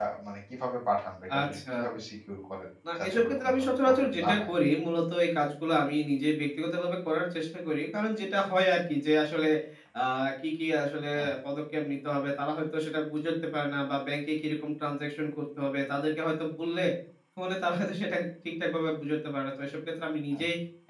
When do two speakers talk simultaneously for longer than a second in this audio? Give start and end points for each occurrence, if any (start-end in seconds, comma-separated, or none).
3.0-4.5